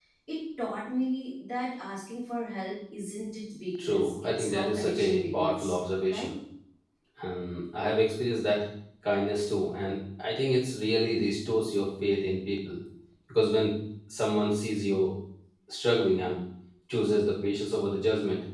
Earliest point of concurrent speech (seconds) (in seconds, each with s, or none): 3.8 s